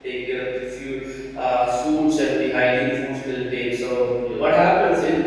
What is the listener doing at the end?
listening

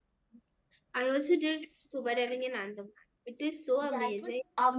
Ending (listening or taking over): taking over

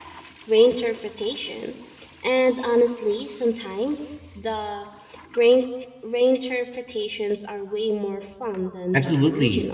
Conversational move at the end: taking over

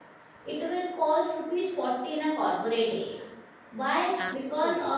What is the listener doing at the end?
listening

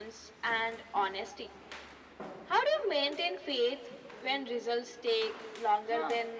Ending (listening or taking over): taking over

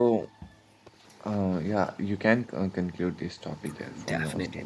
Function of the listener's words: taking over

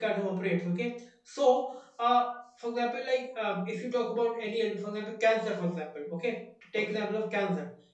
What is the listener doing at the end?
listening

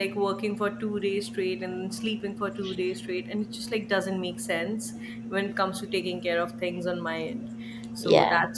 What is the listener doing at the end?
listening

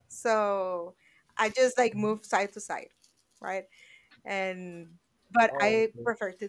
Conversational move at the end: listening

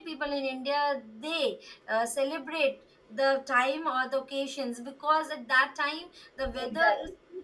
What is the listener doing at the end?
listening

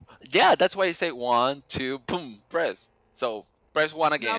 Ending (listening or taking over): taking over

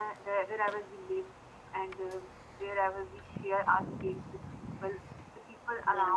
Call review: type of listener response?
listening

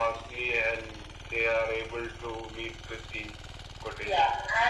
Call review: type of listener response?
taking over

